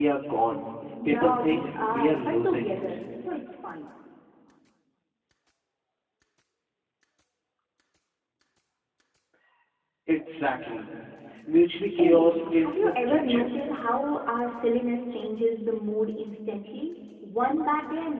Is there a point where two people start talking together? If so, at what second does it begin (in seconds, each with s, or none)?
1.1 s